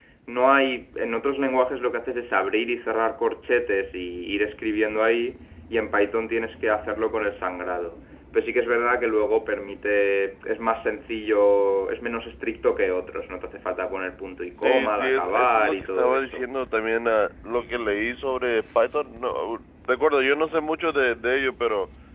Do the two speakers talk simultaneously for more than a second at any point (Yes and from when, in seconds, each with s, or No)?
Yes, from 14.6 s